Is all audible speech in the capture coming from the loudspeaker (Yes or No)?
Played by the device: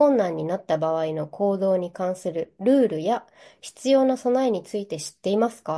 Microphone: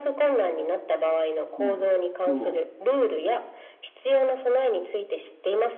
No